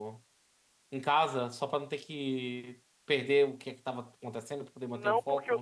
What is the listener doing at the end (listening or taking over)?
taking over